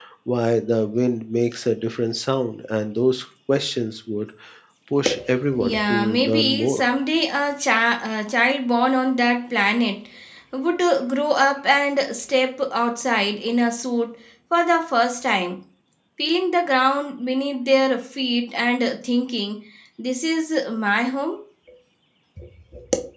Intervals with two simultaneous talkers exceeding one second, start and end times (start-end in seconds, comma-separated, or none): 5.6-6.8